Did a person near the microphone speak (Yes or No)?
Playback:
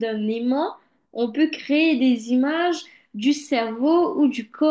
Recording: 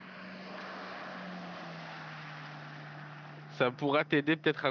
Yes